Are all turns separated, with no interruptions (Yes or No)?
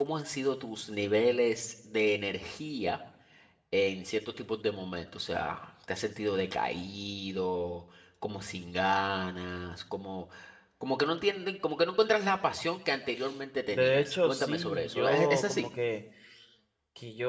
No